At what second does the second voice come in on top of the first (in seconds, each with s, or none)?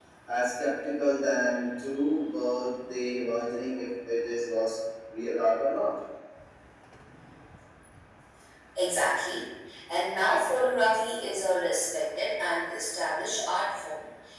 none